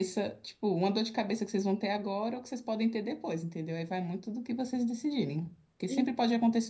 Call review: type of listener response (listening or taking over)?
listening